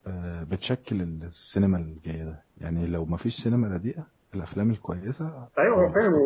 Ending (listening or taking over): taking over